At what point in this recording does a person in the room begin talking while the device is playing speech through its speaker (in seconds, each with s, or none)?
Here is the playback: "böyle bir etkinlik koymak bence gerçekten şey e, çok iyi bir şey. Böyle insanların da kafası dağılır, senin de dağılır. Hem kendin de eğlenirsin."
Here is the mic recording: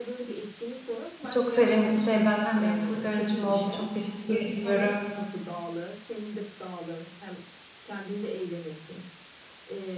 1.3 s